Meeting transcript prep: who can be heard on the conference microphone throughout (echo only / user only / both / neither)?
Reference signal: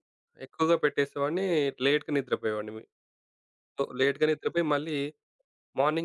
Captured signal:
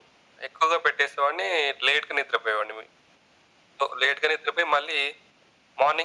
echo only